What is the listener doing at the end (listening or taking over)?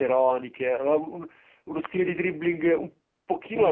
taking over